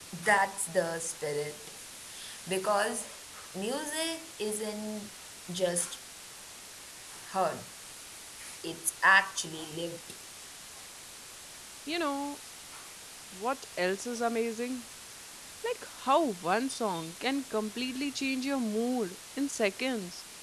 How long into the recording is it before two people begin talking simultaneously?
none

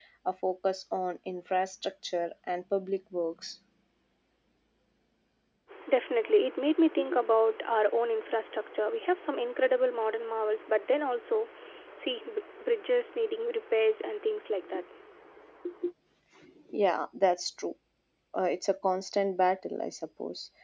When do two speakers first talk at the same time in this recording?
none

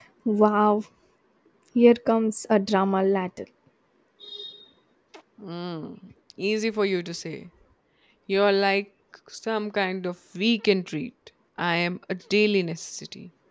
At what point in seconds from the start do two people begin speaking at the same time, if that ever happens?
none

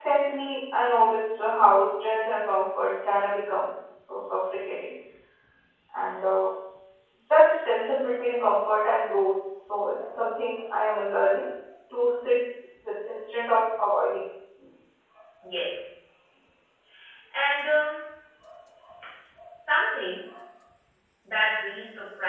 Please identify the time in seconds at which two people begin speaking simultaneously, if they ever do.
none

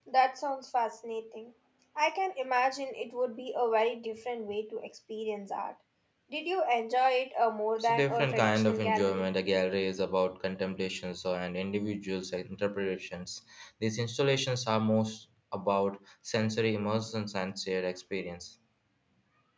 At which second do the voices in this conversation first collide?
7.8 s

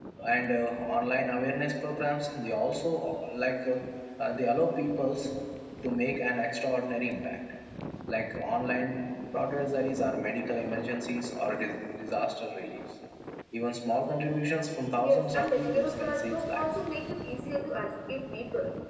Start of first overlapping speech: 15.0 s

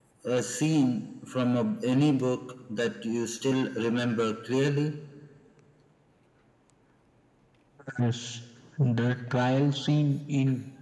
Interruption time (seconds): none

